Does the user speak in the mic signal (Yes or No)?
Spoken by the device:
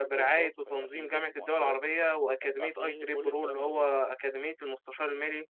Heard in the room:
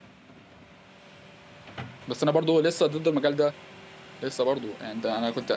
Yes